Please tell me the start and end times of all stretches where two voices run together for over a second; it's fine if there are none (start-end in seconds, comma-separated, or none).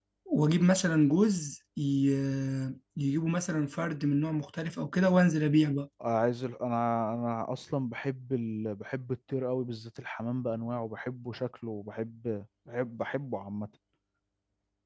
none